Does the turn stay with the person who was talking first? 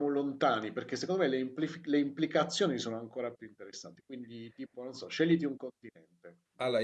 No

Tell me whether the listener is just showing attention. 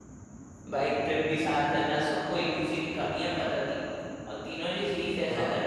Yes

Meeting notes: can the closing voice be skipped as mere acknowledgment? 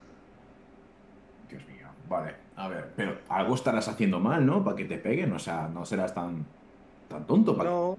No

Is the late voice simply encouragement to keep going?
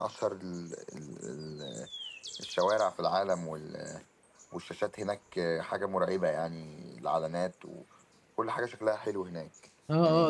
No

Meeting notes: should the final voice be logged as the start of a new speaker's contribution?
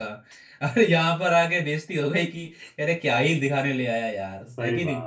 Yes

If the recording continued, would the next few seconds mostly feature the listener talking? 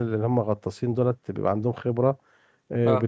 No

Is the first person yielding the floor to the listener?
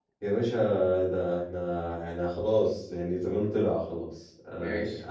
Yes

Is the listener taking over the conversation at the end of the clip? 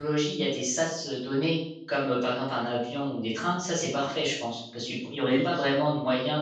No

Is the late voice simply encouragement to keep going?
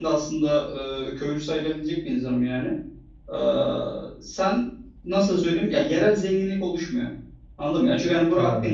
Yes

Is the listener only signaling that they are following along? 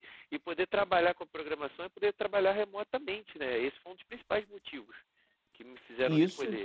No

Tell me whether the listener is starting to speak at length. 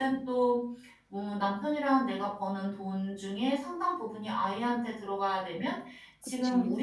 No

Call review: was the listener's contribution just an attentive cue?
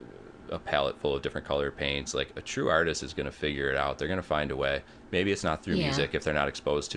Yes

